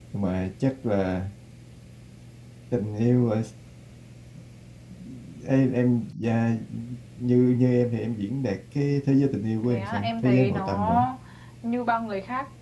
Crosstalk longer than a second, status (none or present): present